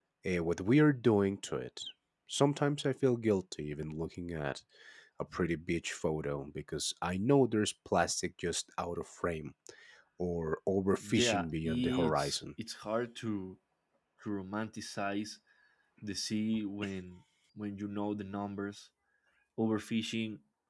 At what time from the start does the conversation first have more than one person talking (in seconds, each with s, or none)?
11.0 s